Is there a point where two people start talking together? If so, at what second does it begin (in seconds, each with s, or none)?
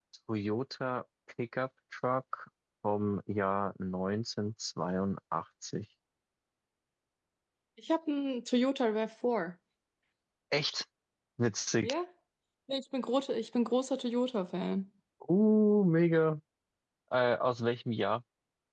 none